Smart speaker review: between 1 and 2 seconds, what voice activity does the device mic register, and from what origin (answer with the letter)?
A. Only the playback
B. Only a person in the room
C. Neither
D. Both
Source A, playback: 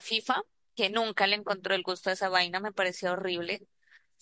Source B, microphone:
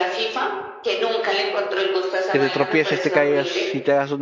A